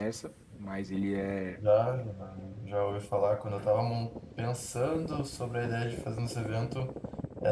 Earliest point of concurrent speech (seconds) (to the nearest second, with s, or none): none